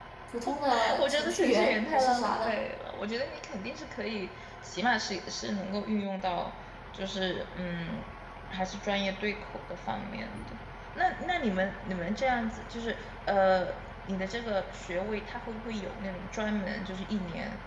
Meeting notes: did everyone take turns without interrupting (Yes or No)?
No